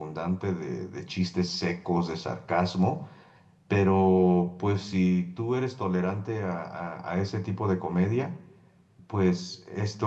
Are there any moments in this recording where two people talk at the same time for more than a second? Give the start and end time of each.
none

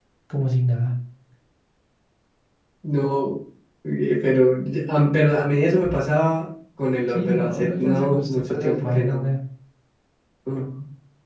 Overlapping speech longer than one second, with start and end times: 7.1-9.3

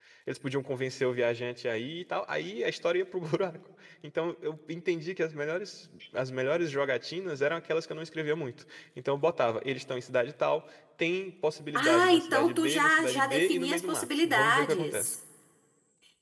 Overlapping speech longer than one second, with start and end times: 11.8-15.1

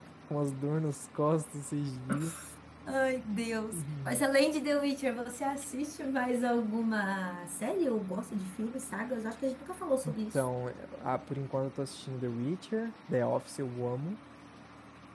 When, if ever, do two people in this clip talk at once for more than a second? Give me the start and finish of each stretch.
none

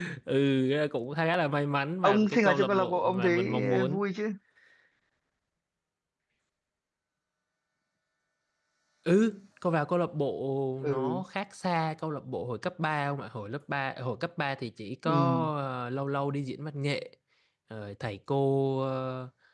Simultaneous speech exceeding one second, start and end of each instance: 2.0-4.0

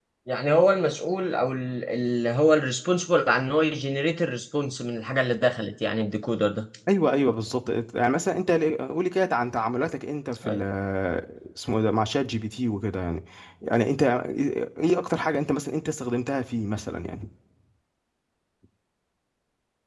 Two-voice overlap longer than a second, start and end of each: none

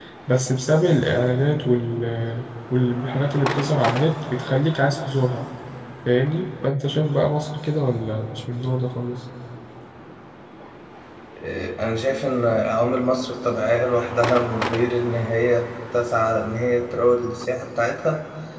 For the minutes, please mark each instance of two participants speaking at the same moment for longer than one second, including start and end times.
none

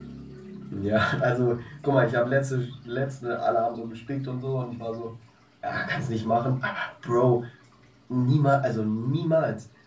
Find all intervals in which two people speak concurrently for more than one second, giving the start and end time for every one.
none

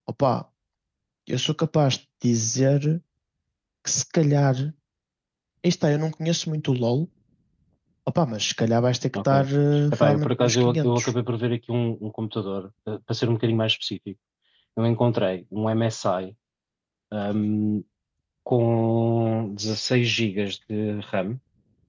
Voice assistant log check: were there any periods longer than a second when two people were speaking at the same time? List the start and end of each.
9.9-11.1

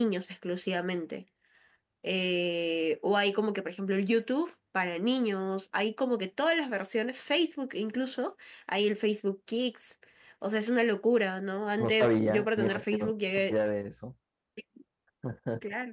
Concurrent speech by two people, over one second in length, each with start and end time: 11.8-13.6

